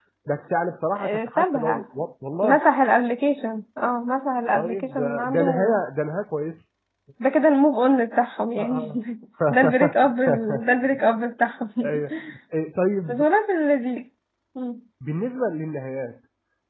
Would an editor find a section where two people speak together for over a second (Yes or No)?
Yes